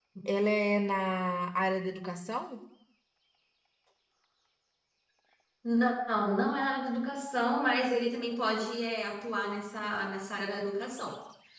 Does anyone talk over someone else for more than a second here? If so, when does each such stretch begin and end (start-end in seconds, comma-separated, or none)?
none